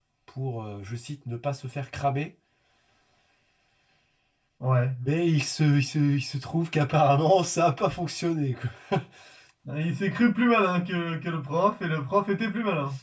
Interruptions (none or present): none